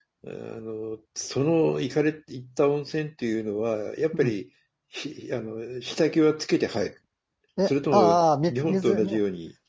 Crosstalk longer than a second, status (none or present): present